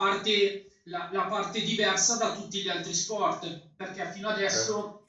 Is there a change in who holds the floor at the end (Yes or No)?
No